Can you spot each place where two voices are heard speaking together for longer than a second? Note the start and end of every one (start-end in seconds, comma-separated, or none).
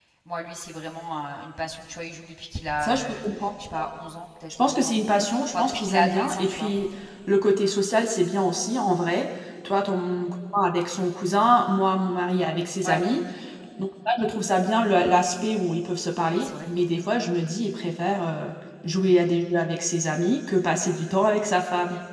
5.5-6.7